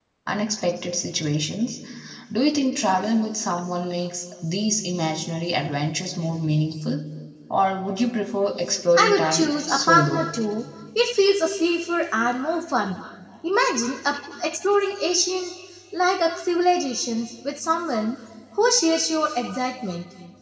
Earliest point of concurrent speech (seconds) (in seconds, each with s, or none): 9.0 s